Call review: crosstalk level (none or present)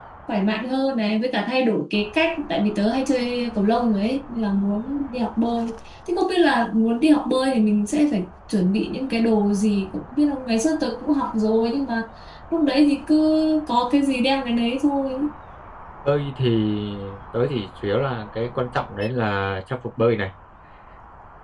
none